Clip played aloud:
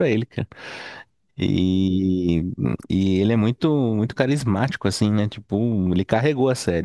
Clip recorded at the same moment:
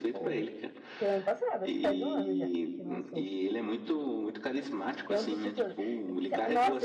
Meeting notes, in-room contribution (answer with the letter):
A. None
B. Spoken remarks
B